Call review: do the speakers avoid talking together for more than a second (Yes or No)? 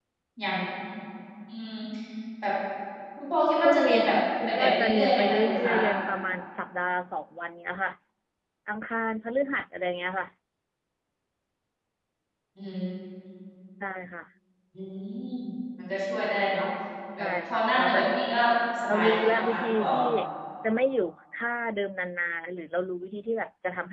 No